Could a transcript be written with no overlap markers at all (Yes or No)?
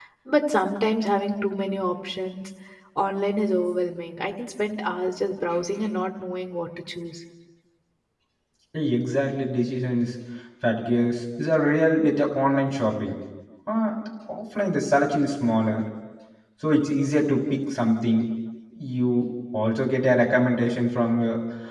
Yes